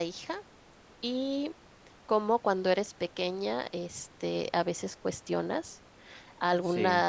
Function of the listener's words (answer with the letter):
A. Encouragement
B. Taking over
A